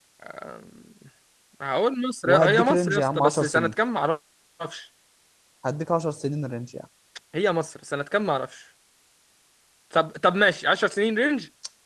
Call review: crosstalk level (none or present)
present